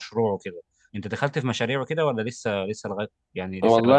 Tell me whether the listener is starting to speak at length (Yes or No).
Yes